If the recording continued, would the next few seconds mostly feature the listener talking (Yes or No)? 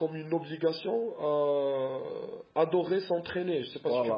Yes